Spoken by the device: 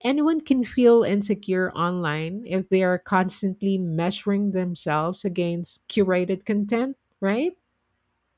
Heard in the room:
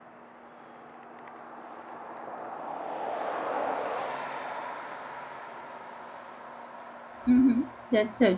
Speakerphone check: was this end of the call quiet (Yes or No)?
No